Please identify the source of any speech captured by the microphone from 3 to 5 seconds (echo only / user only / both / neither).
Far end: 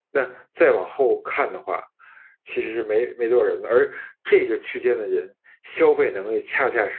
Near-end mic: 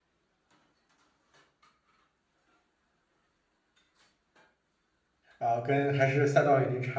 neither